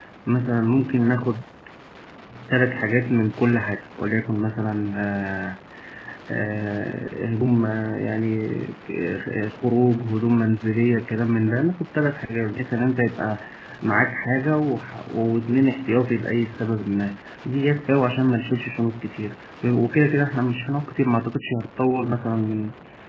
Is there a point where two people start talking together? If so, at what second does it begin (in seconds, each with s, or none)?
none